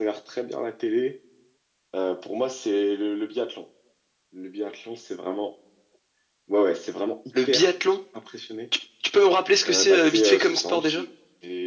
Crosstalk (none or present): present